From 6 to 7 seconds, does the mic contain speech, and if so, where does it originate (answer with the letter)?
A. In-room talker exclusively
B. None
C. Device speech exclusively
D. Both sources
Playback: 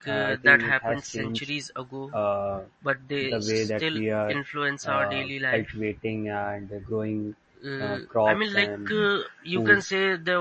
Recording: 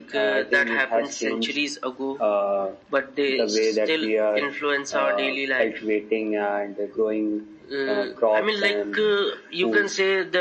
C